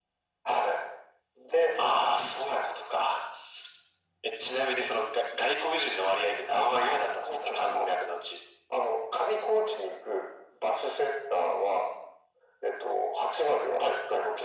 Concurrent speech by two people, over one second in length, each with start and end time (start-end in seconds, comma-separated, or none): 6.5-7.9